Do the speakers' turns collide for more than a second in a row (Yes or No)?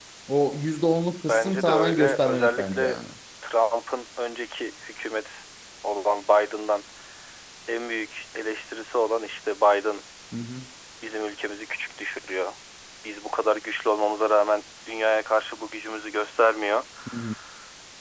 Yes